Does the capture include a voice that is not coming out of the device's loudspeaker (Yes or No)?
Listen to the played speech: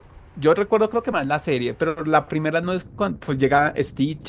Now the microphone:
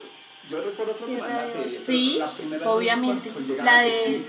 Yes